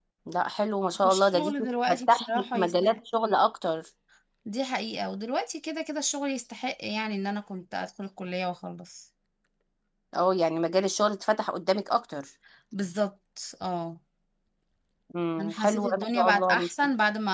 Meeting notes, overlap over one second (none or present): present